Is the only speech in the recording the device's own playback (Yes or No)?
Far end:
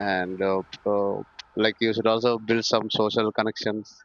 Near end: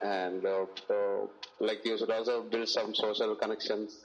Yes